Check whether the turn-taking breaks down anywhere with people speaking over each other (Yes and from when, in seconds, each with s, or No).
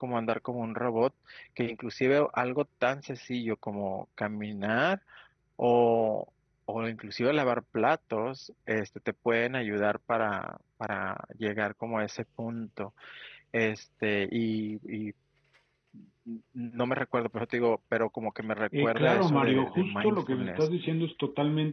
Yes, from 18.7 s